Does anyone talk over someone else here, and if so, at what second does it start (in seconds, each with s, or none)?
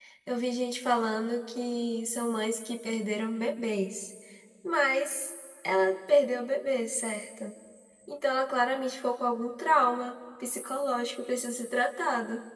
none